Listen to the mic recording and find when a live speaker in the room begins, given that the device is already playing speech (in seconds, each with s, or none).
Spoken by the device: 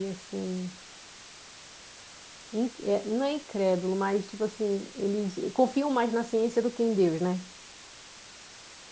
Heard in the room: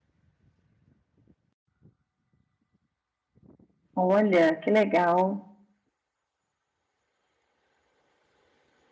3.9 s